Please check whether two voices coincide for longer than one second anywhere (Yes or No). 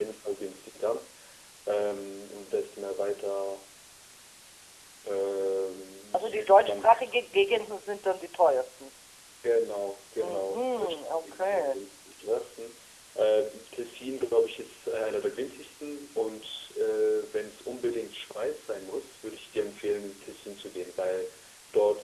Yes